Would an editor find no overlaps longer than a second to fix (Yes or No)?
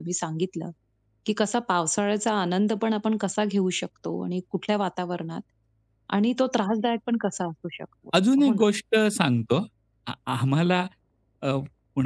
Yes